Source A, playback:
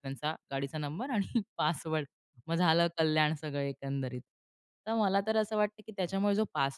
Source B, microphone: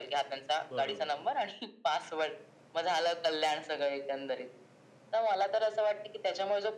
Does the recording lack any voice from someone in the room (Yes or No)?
No